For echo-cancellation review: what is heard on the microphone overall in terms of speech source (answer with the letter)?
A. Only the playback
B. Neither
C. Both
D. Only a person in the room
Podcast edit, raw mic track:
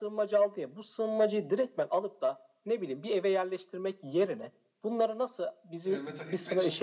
C